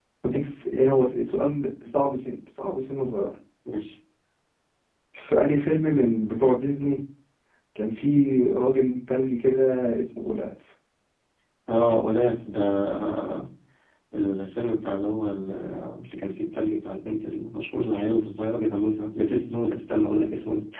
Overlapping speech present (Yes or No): No